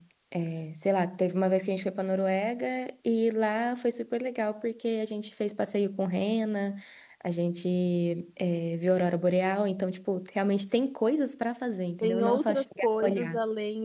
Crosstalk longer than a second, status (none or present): present